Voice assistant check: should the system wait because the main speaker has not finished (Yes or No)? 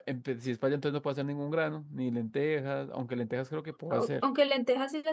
No